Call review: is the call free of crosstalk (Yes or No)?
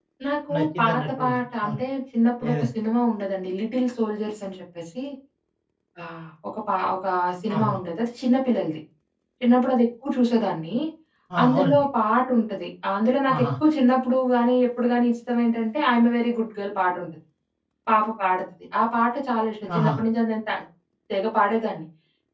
No